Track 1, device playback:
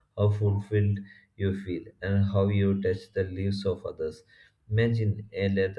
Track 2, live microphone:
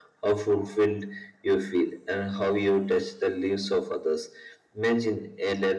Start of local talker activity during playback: none

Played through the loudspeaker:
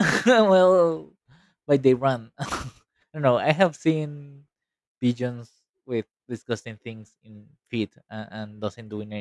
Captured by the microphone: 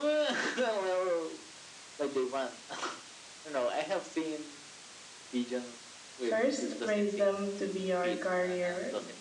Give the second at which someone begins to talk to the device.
6 s

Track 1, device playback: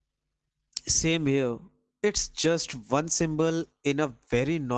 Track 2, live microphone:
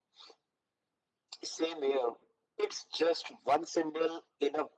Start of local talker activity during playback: none

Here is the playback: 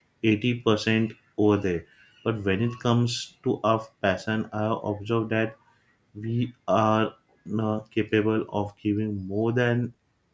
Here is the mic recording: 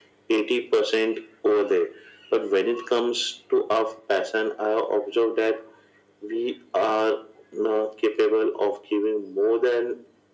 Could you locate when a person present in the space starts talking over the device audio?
none

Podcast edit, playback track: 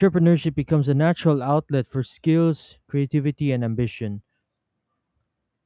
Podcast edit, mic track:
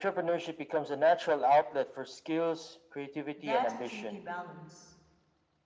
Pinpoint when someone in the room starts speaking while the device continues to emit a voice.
3 s

